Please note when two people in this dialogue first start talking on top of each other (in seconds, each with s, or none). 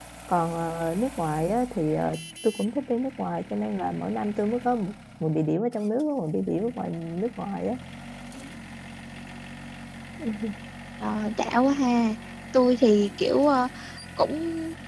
none